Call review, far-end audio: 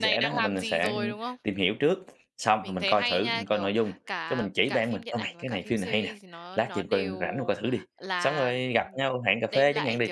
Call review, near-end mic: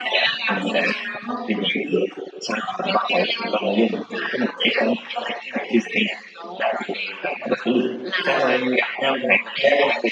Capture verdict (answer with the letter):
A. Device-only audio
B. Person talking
A